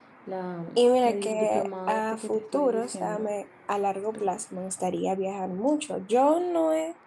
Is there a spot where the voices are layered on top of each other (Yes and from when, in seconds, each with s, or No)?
Yes, from 1.1 s